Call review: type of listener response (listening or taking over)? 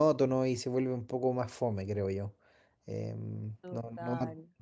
listening